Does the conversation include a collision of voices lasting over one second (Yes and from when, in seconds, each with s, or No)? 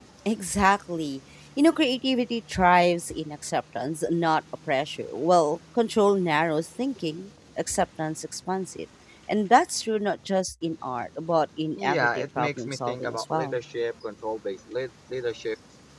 Yes, from 11.8 s